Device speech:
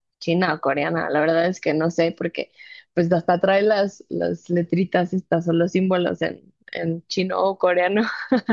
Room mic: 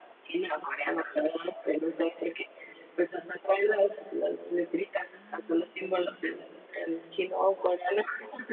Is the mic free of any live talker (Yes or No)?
No